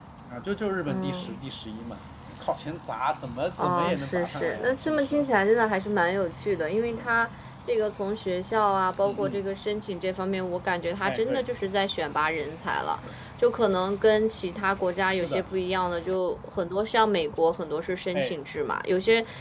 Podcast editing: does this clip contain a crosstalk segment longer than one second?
Yes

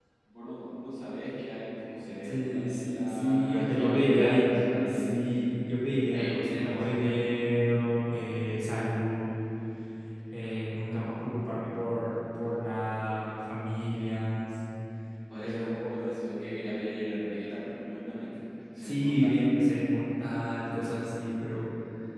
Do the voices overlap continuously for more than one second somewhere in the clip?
Yes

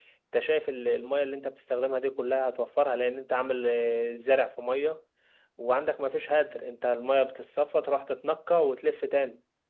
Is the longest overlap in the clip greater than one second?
No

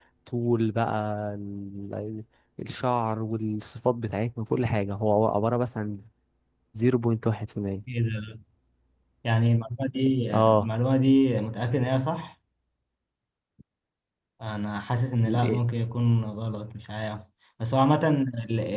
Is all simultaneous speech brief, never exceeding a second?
Yes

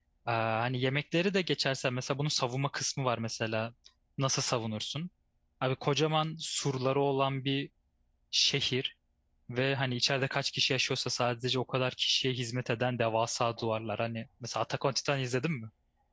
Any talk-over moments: No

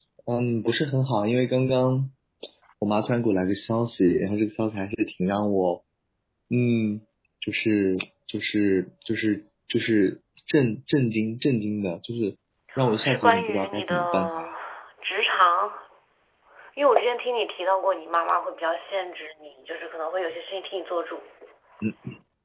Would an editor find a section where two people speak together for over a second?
Yes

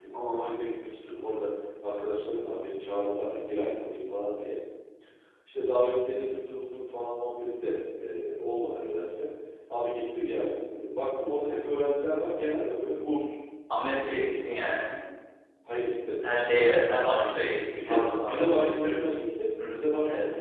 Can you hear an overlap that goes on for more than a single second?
Yes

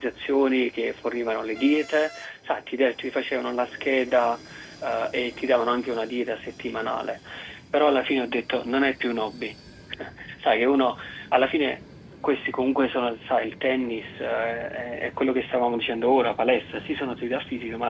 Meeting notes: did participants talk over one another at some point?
No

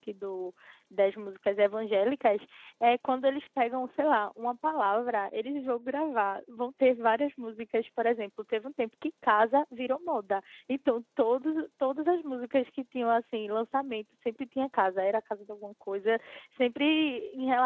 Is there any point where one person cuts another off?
No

